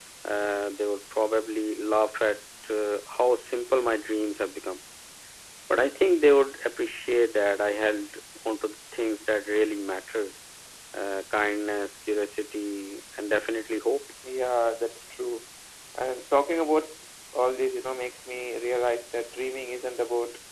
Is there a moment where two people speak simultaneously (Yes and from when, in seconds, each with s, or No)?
No